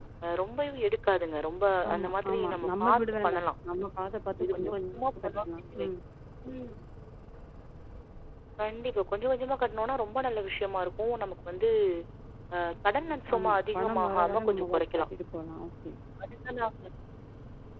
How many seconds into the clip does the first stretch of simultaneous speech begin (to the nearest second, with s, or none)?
2 s